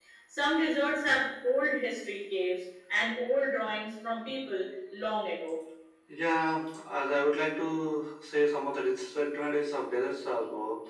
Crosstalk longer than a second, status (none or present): none